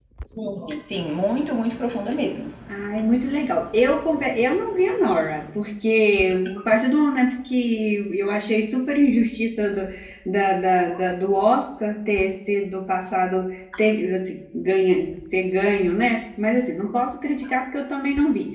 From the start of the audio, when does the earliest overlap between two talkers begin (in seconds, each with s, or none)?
none